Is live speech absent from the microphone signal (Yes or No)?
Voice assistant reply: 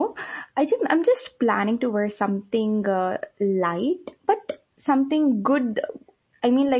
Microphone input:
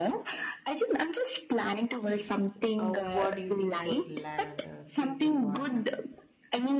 No